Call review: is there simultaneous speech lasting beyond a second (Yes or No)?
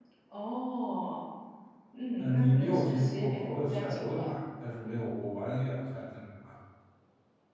Yes